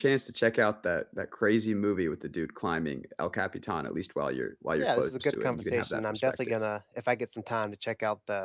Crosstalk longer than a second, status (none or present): present